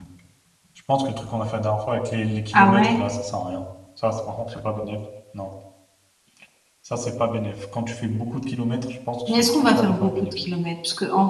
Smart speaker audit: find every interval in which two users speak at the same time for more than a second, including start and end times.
9.3-10.5

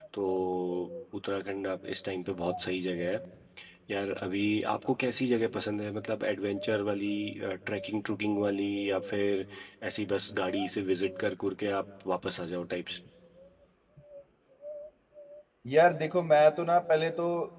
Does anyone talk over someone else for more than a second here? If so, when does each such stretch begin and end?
none

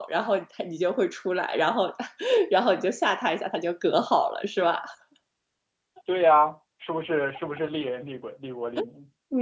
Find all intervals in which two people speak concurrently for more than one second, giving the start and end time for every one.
none

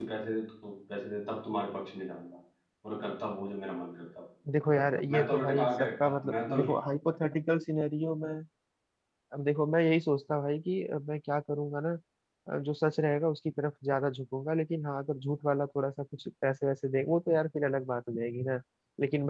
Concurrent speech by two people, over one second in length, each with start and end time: 5.1-6.6

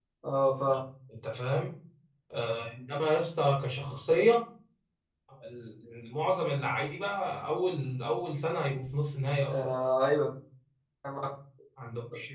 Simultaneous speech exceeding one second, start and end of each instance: none

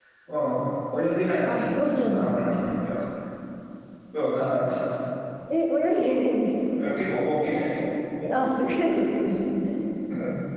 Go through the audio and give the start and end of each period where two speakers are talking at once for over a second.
1.4-2.7

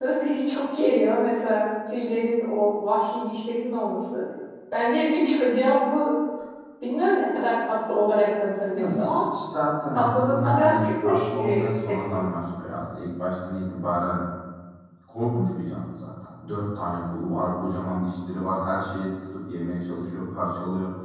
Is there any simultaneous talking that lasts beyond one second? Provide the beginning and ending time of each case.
9.9-12.3

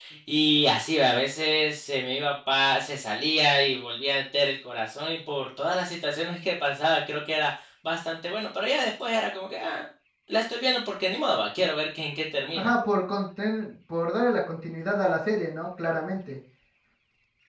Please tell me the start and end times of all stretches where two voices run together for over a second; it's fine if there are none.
none

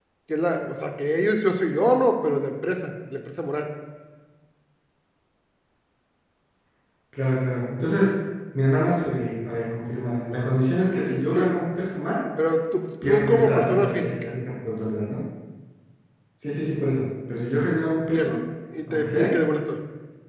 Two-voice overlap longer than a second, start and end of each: 13.1-14.3

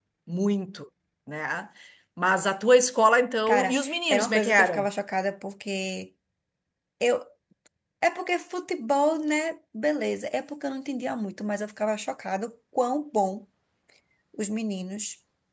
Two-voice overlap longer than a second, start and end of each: 3.5-4.9

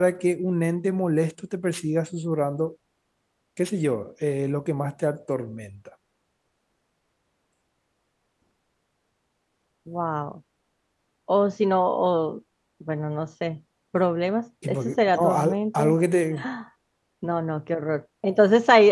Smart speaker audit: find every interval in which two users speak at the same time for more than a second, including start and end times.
14.7-16.0

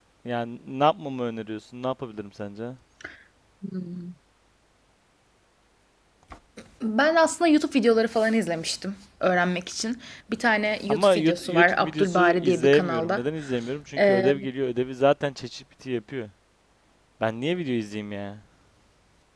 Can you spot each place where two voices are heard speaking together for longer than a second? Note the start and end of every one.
10.9-13.2

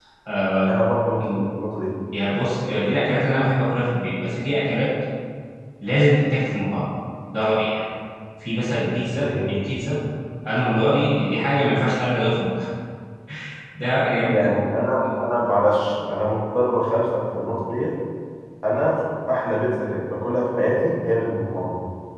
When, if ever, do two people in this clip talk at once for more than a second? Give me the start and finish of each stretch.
none

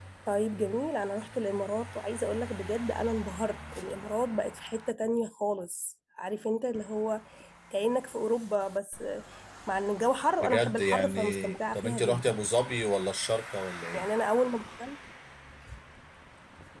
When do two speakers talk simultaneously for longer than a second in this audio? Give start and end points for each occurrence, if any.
10.4-12.3

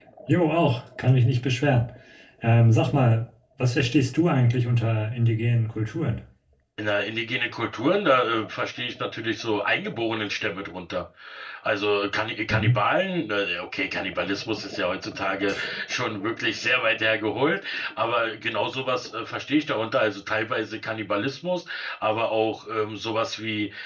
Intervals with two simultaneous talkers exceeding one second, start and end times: none

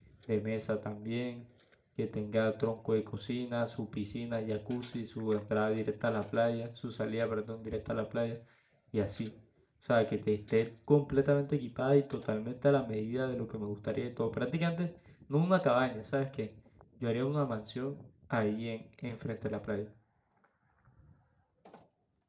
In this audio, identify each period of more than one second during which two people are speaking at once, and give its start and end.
none

